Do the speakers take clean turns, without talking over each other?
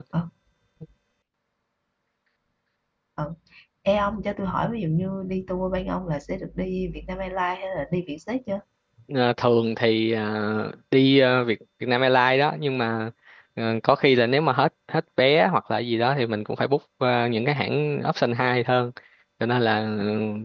Yes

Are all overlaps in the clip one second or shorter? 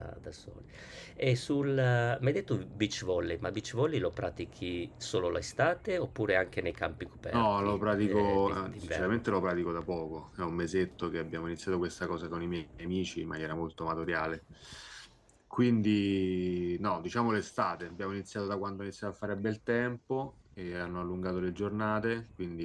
No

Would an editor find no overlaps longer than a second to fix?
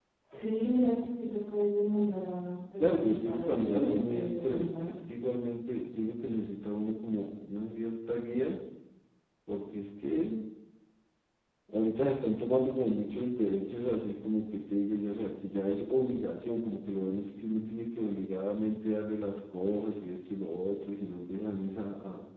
No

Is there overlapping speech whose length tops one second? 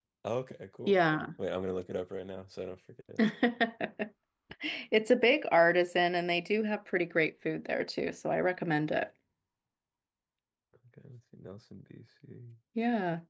No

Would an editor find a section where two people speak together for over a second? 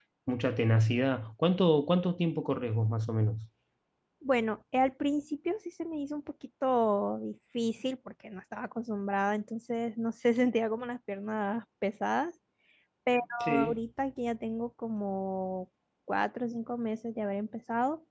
No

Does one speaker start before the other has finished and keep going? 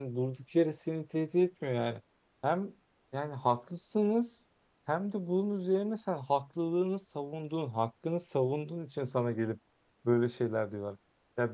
No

